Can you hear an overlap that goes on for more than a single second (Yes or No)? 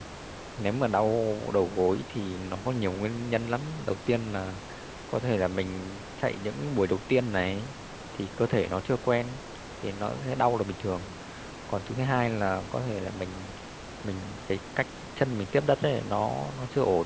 No